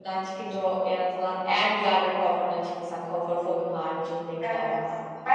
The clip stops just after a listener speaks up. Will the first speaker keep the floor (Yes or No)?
No